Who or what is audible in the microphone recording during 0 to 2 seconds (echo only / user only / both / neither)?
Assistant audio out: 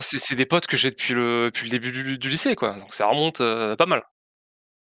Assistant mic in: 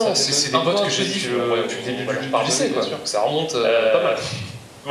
both